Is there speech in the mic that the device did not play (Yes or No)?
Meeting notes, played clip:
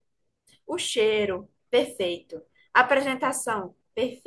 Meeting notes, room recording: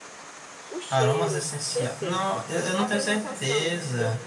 Yes